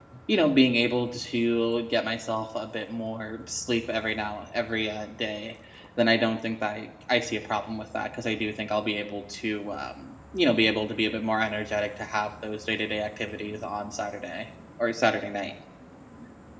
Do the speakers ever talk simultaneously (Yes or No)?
No